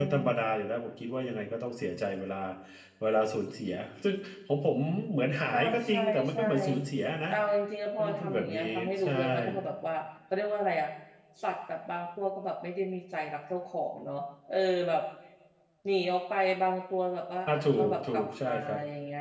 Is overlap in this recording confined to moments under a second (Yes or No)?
No